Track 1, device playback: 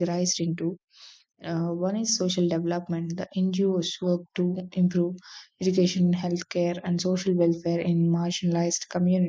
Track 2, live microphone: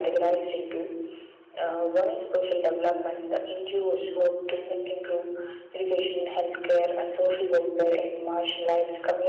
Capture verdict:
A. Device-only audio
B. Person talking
A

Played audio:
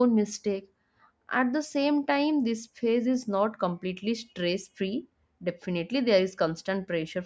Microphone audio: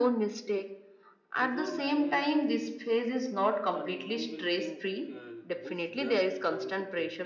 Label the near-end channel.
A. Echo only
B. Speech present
B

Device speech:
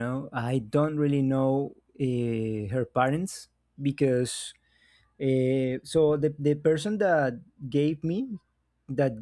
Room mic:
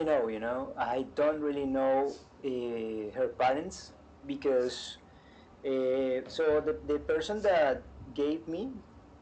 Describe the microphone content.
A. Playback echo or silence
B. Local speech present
A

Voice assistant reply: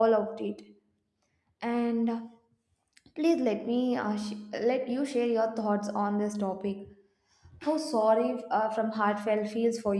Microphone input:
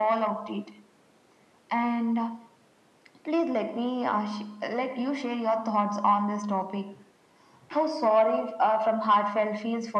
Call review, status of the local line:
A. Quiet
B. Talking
A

